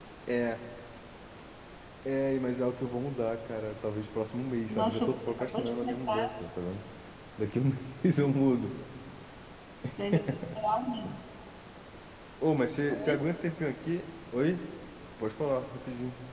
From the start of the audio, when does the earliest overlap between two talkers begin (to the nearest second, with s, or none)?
5 s